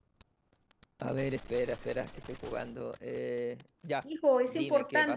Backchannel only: No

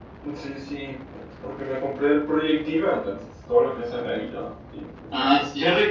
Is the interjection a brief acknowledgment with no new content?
No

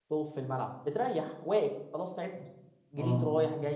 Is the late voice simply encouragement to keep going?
Yes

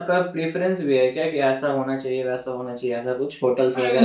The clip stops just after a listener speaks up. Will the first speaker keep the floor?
No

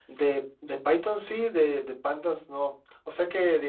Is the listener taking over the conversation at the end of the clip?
No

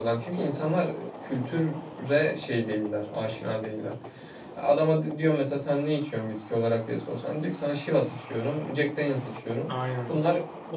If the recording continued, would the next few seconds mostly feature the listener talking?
No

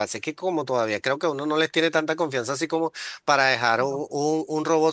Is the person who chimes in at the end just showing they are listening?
Yes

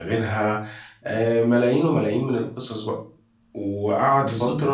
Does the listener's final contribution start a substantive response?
Yes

